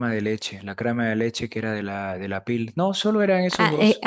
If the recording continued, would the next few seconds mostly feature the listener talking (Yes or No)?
Yes